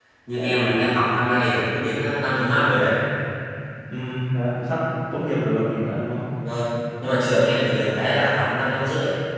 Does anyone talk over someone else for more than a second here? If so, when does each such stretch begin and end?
none

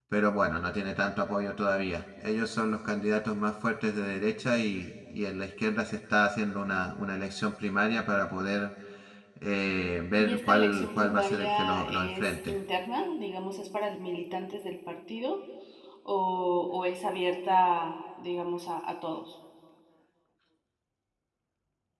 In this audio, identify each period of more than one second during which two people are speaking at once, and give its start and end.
10.2-12.6

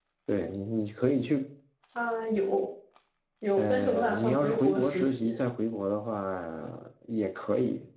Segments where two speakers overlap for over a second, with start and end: 3.6-5.2

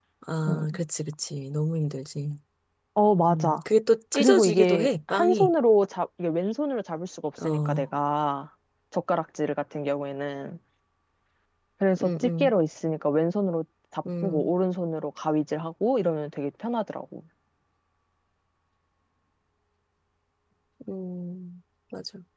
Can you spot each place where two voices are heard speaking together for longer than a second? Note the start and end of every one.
4.1-5.5

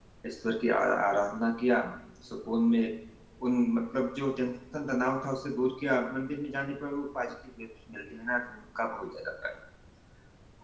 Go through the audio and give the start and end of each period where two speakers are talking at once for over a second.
none

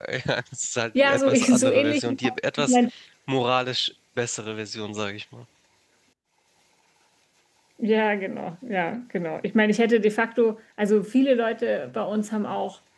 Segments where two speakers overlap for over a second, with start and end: 0.9-2.2

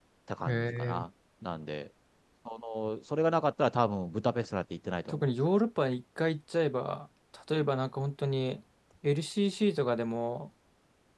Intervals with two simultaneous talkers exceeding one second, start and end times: none

